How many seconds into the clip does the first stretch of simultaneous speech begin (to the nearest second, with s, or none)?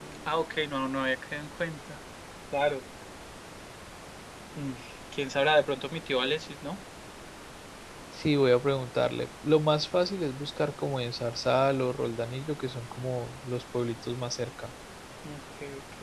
none